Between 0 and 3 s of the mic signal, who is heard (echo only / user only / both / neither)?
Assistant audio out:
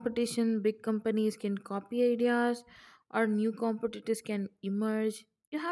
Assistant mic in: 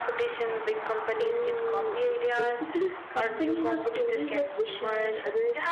both